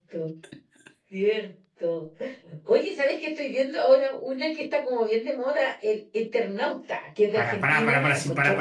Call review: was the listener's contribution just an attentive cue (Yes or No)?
No